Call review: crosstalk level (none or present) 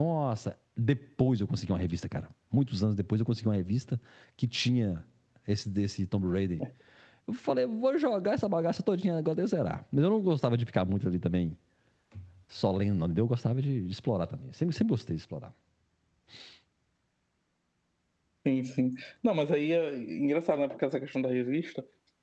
none